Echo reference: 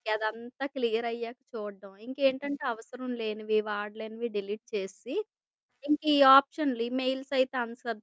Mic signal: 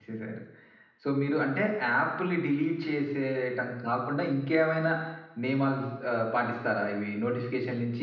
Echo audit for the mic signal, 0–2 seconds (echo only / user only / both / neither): user only